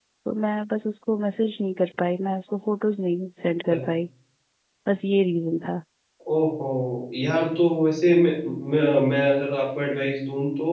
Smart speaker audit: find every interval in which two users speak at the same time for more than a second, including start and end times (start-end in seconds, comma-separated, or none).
none